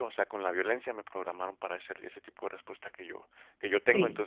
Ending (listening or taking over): listening